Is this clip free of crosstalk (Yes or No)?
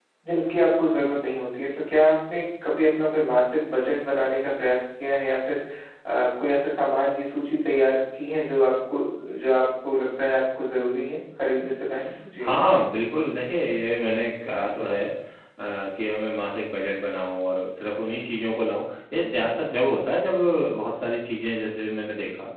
Yes